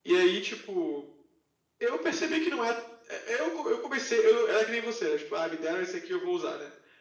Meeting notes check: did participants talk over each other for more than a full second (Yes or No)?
No